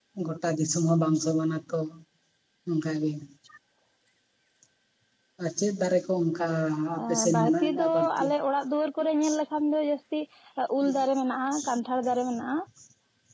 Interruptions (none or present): present